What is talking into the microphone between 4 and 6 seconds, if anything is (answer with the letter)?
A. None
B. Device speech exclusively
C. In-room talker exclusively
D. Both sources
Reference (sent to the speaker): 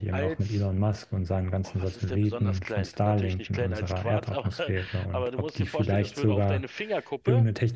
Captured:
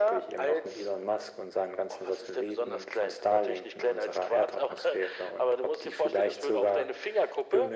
B